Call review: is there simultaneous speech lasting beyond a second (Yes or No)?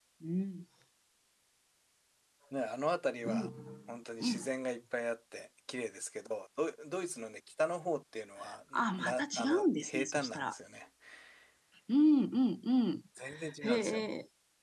Yes